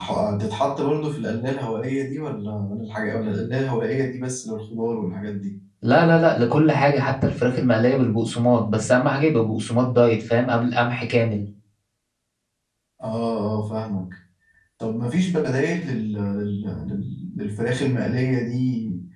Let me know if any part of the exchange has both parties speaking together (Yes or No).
No